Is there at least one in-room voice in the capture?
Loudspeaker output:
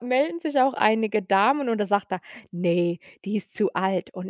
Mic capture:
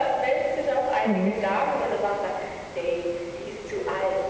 Yes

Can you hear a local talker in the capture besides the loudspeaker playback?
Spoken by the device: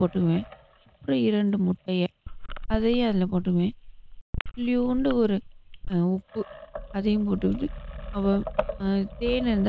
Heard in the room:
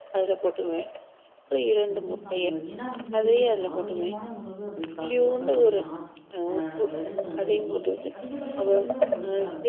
Yes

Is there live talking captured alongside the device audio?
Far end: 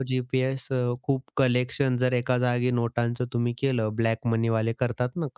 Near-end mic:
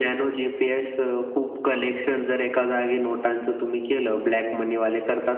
No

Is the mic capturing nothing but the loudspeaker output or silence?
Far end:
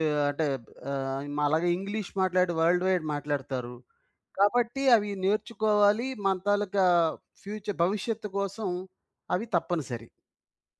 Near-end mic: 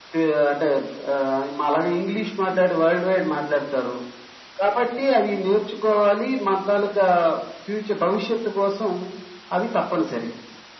Yes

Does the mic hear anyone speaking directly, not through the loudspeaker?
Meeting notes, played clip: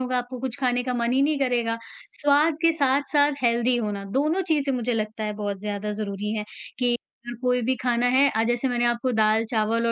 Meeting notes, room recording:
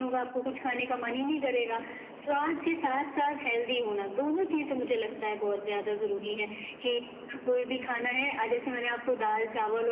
No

